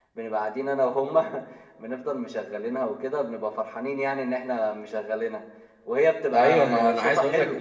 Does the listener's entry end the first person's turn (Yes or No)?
Yes